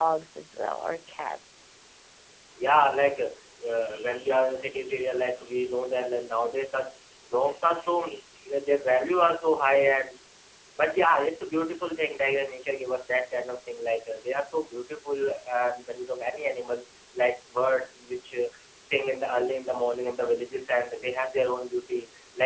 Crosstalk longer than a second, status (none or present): none